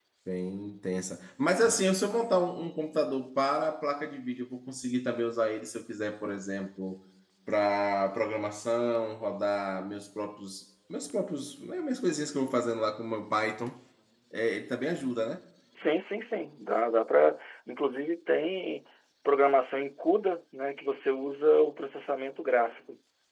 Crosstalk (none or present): none